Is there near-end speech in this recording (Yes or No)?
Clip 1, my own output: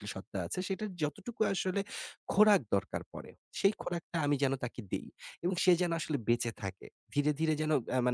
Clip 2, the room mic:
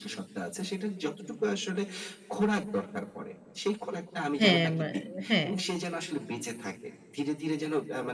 Yes